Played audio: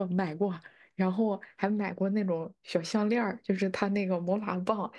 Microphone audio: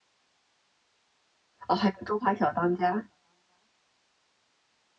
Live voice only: 哦，还有《中华小当家》。

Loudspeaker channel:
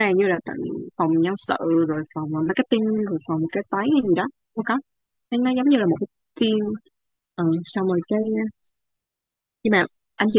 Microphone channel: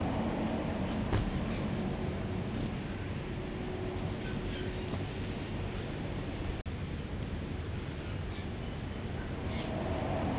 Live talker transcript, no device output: none

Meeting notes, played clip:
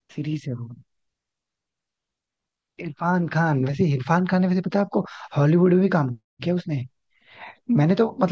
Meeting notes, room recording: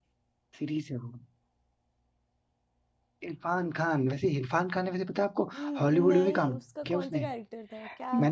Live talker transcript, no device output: न- नहीं उसका कौन सा कैरेक्टर था क्या

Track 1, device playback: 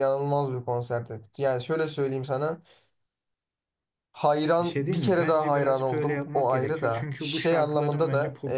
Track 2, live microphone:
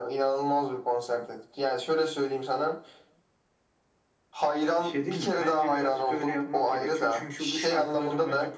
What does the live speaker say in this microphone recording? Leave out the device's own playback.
none

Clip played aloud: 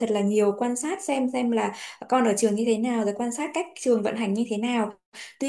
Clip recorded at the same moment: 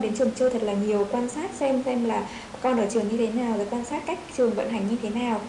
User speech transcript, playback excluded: none

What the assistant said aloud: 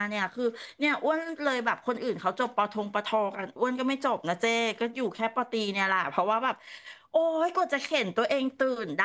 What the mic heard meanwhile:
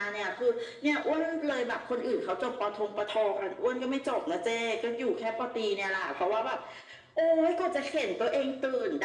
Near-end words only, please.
none

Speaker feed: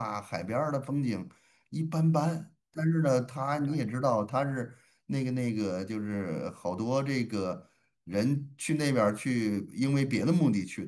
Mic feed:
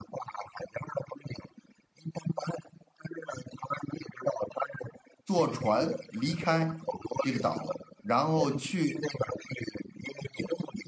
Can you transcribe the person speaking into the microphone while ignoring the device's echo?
坐船离开这个岛，然后去

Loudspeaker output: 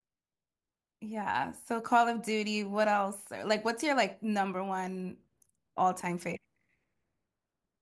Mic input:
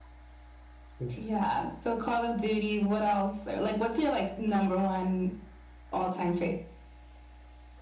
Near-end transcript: Interesting.

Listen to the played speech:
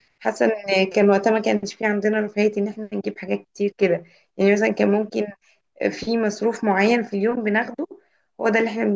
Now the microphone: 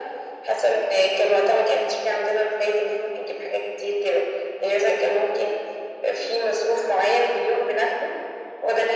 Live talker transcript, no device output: none

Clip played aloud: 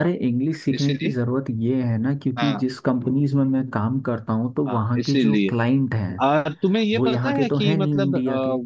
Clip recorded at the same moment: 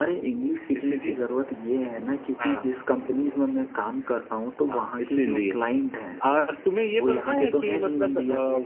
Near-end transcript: none

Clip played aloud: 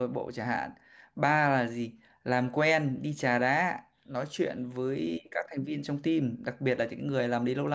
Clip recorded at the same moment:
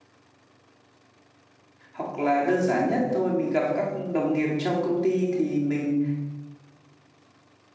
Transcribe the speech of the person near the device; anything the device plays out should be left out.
hoặc là đơn giản nhất thôi mình gặp các đồng nghiệp trong công ty thì mình,

